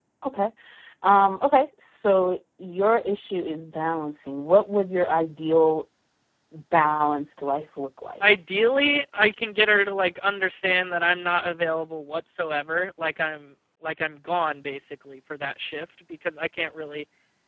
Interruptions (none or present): none